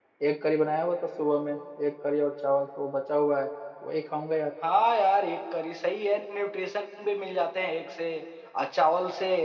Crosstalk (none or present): none